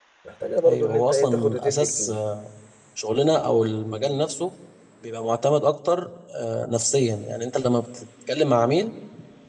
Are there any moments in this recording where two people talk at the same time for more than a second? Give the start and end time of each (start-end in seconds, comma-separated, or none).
0.7-2.1